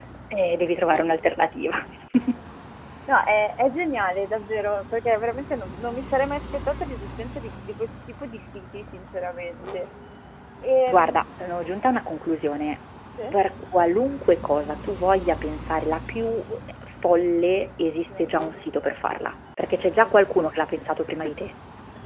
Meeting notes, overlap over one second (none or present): none